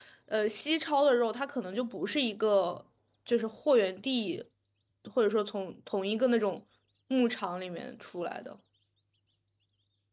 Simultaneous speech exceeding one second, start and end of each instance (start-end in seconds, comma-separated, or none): none